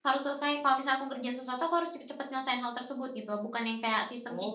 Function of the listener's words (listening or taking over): listening